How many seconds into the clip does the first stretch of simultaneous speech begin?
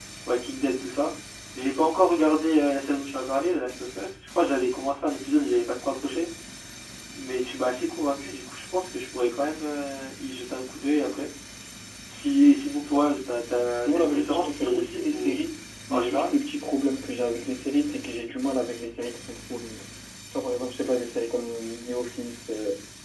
13.9 s

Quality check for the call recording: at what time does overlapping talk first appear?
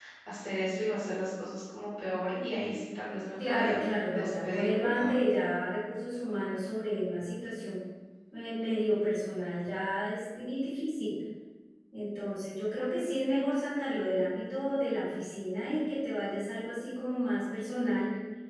3.4 s

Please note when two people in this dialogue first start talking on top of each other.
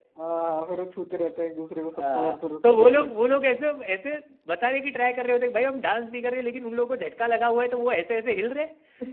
2.0 s

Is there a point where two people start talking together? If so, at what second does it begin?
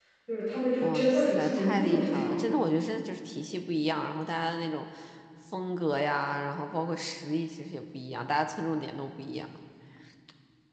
0.8 s

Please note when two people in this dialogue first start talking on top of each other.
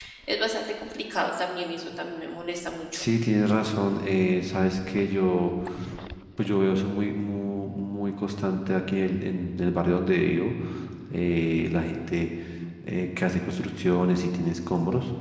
none

